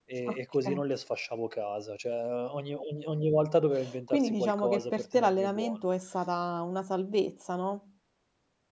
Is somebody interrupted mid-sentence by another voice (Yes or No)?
Yes